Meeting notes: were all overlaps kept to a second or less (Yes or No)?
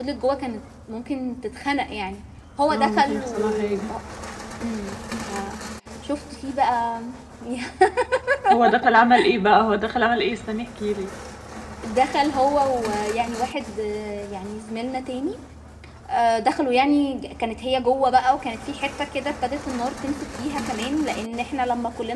No